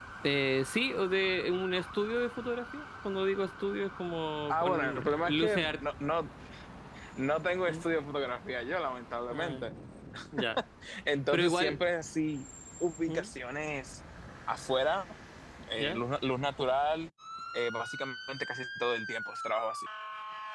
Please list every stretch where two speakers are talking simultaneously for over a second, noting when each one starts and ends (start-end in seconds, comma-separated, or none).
4.5-5.8